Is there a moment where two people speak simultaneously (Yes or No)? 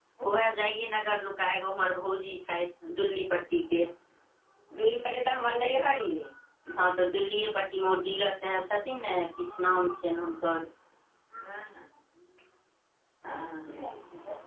No